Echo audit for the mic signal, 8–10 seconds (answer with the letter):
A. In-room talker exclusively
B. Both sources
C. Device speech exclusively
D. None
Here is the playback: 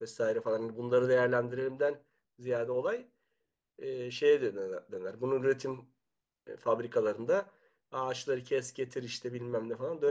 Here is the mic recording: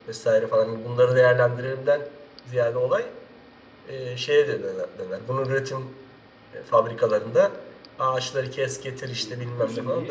B